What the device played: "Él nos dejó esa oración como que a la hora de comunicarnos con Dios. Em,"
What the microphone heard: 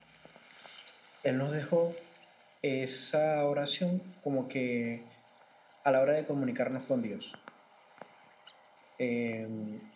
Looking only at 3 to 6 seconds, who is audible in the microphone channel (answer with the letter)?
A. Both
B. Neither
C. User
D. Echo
D